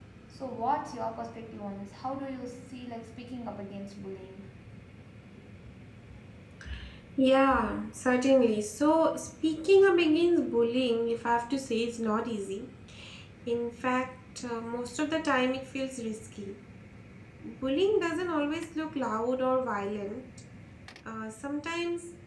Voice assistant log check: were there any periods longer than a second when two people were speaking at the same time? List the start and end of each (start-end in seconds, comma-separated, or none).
none